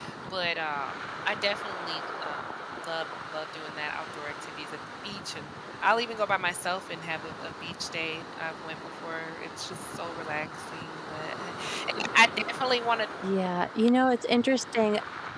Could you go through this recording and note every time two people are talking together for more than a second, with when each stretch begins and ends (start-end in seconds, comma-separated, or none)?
none